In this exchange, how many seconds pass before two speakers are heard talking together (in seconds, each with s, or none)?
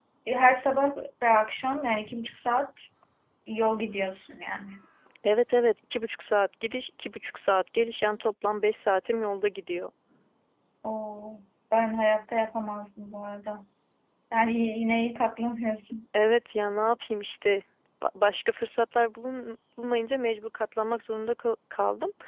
none